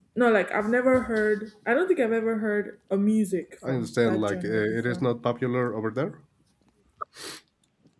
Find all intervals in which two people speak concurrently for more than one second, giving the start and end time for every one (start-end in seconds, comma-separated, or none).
3.7-5.0